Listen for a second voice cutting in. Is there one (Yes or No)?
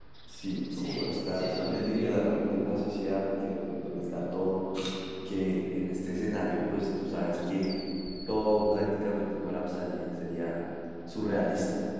Yes